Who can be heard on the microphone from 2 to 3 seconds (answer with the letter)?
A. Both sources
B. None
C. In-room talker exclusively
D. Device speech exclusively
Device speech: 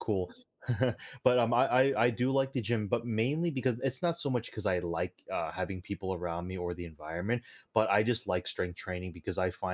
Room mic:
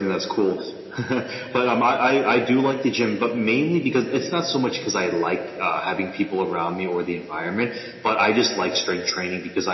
D